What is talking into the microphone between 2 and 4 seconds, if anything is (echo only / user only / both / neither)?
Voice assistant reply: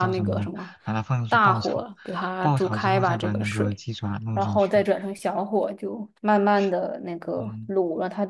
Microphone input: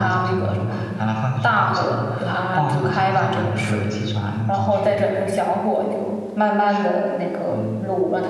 echo only